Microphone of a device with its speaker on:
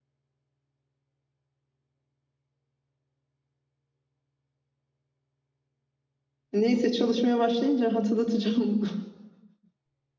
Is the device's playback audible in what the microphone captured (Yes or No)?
No